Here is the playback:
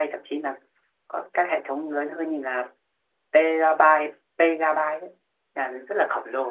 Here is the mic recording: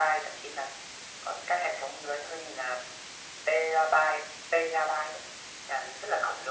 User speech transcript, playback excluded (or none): none